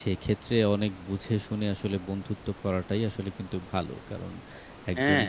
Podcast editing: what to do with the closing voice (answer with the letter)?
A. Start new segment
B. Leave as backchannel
B